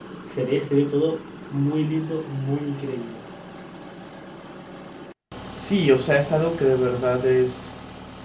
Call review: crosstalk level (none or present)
none